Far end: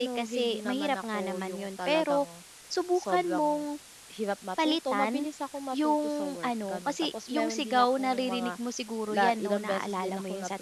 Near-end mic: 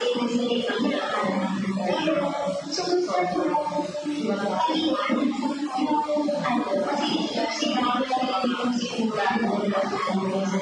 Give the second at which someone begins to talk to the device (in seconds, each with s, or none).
none